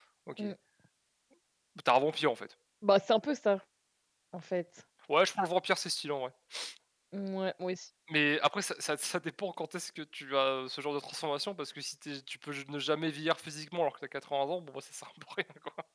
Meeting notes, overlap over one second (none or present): none